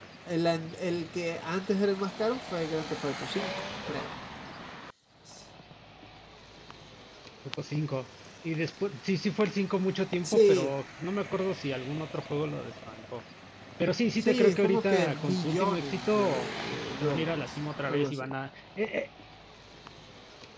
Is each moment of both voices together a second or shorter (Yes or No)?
No